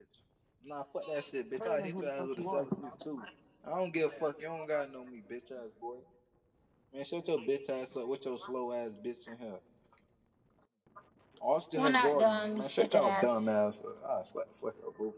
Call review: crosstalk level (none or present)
present